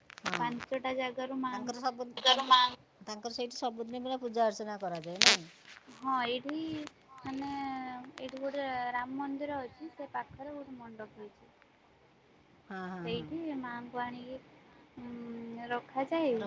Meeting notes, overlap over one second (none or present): none